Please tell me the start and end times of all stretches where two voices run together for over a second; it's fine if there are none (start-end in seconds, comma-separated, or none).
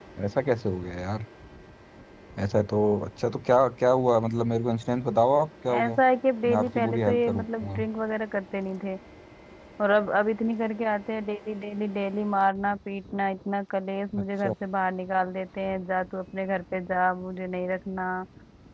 6.4-7.8